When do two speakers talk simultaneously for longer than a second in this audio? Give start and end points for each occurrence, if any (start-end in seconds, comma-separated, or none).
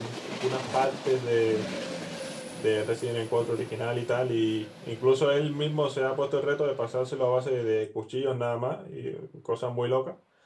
none